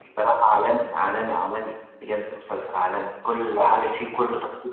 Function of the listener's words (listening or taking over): listening